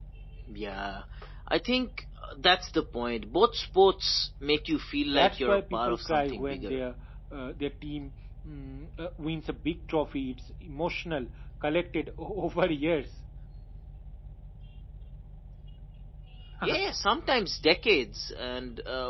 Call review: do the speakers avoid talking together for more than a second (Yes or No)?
No